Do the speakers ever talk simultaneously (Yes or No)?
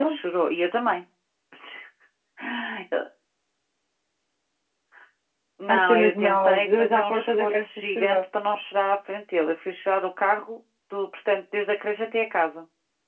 Yes